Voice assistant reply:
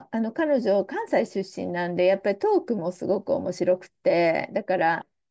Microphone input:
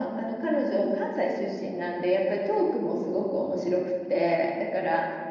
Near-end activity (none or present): none